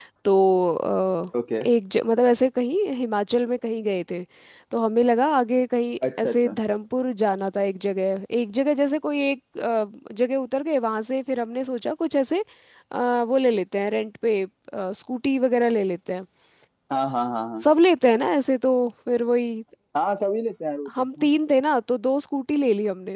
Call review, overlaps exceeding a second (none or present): none